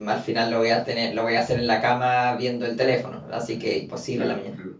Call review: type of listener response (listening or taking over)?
taking over